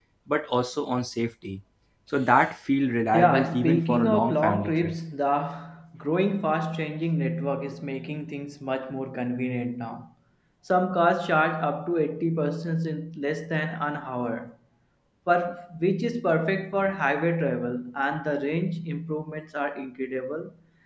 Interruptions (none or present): present